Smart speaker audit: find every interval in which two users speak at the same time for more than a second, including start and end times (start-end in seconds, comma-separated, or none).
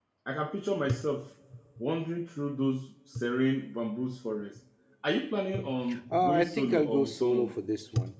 6.1-7.5